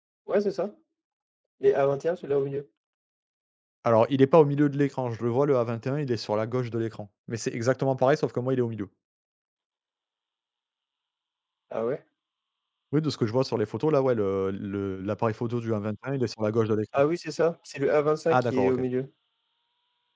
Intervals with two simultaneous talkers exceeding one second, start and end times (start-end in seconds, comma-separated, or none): none